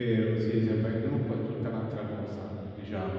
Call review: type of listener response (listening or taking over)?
taking over